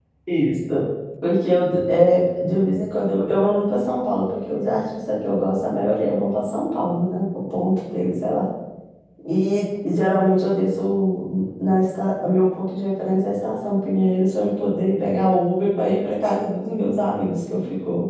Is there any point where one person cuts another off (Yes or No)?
No